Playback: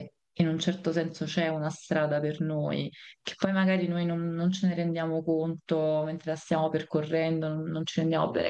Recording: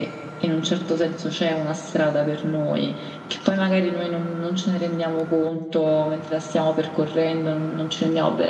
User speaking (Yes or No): No